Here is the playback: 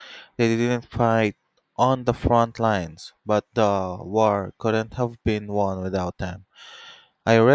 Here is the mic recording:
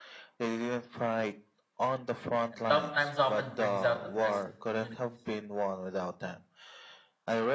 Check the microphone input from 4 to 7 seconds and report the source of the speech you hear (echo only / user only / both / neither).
both